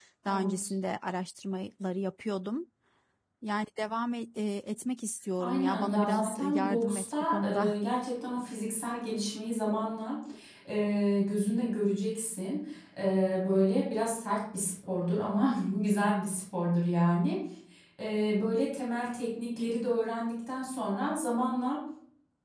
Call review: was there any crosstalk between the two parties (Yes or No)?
Yes